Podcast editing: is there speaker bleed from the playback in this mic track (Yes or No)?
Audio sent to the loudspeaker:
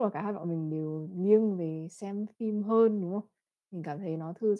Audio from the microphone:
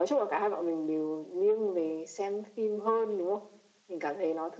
Yes